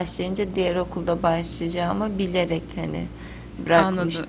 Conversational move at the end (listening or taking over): taking over